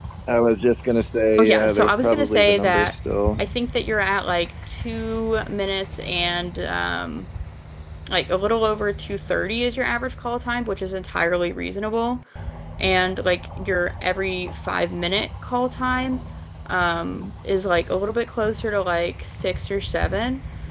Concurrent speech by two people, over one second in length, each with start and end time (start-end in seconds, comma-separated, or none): 1.4-2.9